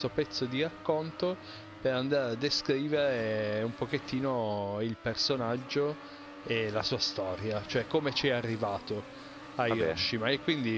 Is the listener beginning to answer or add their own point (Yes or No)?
No